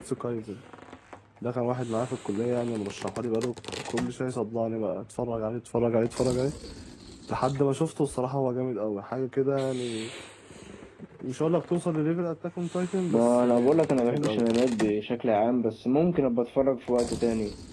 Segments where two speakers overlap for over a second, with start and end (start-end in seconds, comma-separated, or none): 13.1-14.5